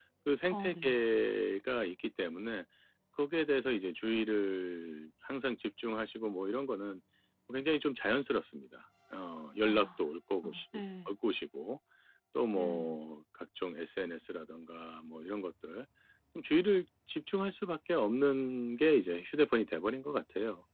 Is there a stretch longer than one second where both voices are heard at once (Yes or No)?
No